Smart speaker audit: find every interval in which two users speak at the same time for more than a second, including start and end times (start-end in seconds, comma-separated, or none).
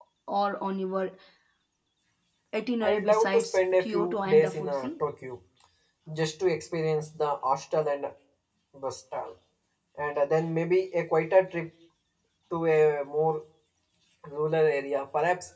2.8-4.9